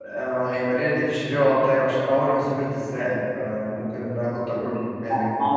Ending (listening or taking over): taking over